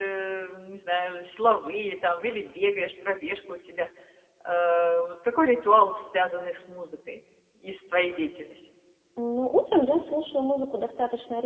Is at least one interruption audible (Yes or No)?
No